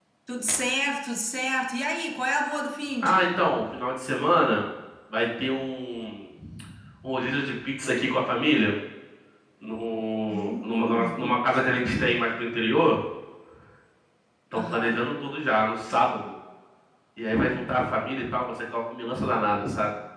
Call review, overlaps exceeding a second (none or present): present